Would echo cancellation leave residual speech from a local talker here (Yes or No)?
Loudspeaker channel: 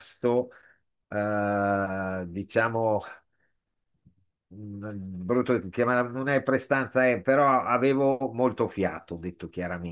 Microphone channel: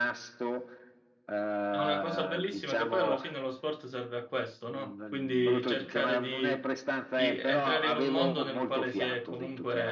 Yes